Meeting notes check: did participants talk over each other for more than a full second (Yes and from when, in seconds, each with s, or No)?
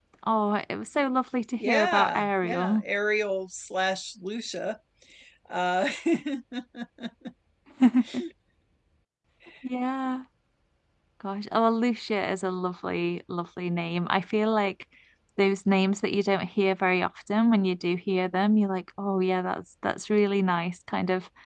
Yes, from 1.6 s